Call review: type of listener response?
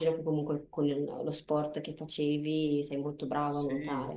taking over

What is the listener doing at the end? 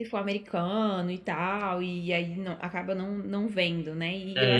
taking over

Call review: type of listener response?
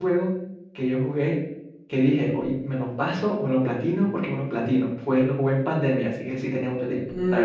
taking over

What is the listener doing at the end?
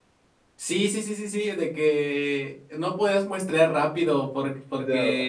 listening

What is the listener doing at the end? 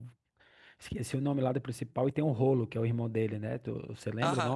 taking over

